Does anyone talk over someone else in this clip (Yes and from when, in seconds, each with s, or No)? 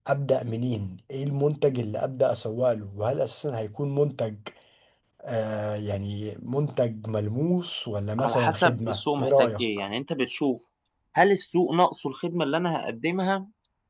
Yes, from 8.2 s